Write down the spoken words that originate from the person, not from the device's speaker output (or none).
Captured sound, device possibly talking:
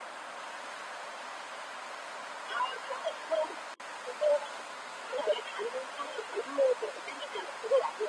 none